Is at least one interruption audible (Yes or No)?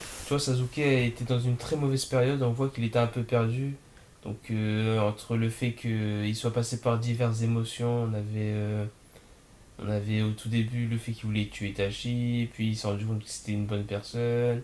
No